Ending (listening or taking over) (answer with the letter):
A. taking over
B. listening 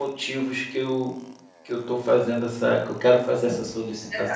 A